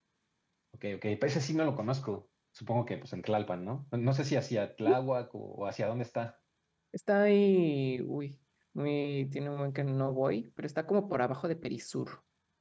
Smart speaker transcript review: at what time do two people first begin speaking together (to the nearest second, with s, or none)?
none